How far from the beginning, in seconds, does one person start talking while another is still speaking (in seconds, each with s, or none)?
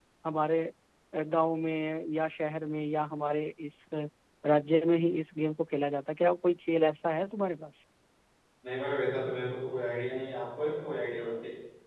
none